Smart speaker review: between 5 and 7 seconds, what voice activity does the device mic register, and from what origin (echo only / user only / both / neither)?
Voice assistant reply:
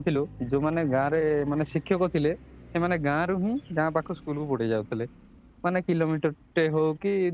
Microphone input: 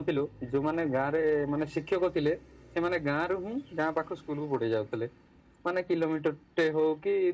echo only